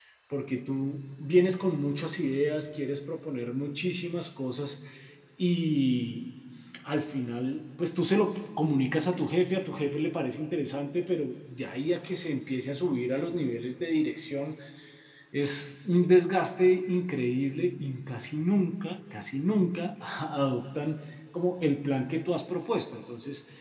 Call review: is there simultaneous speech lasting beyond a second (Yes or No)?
No